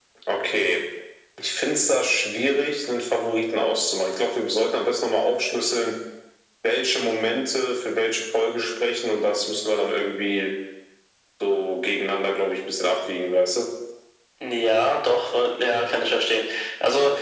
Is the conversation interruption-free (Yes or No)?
Yes